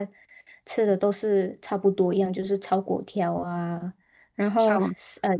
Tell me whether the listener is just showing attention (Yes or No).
Yes